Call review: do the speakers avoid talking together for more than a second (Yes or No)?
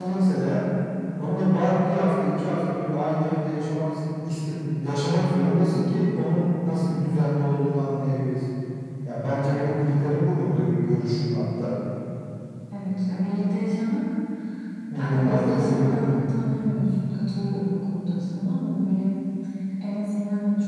No